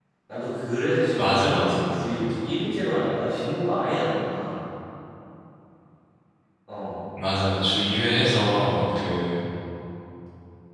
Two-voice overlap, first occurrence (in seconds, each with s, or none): 1.2 s